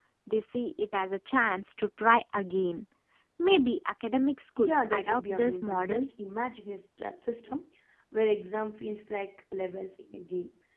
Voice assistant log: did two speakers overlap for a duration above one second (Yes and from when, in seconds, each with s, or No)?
Yes, from 4.6 s